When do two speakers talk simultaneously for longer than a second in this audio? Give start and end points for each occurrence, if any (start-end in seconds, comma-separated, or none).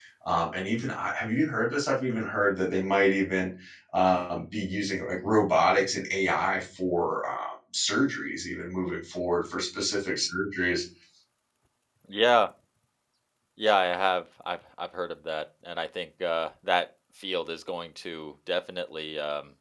none